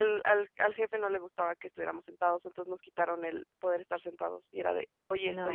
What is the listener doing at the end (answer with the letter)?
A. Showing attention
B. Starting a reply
A